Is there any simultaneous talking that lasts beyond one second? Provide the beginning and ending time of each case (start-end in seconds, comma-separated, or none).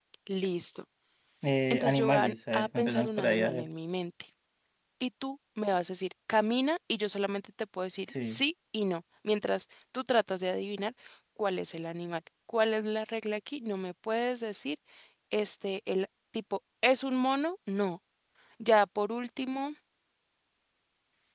1.7-3.7